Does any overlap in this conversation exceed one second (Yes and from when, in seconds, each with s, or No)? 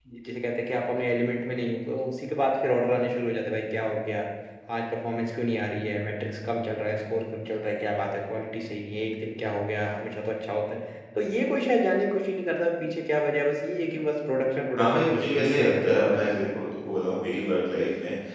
Yes, from 14.8 s